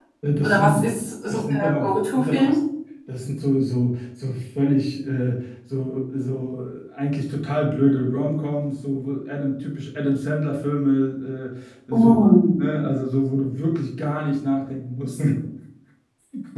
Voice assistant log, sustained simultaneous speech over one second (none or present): present